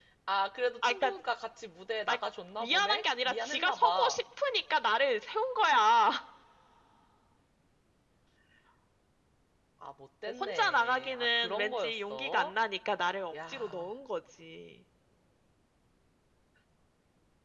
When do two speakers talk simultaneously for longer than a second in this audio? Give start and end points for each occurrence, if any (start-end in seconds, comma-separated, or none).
2.6-4.2, 10.4-12.5